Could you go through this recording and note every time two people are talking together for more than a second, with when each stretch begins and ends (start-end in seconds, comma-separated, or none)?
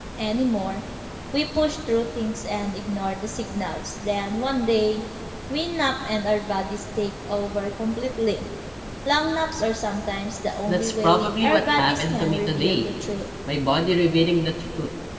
10.7-12.9